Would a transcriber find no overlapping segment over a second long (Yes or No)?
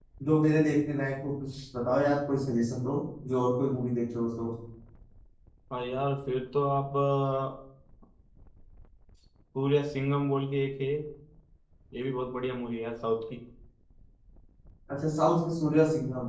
Yes